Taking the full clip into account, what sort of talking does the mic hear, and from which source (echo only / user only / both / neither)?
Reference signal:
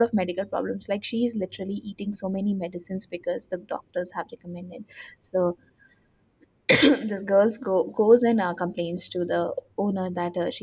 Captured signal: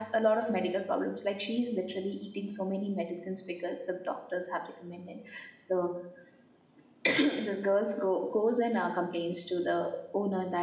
echo only